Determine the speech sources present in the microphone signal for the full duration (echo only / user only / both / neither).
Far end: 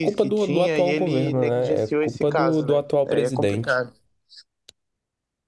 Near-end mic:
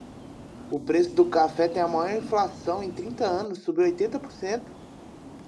user only